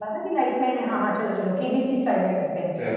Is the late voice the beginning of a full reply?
Yes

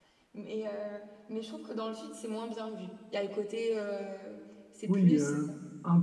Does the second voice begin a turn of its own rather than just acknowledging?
Yes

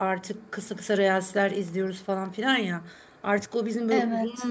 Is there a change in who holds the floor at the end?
No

